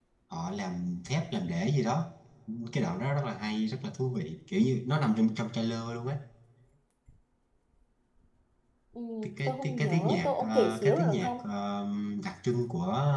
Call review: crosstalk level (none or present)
present